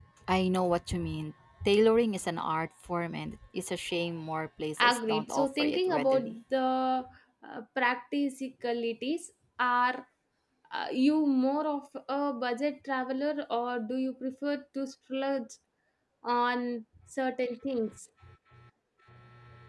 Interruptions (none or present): present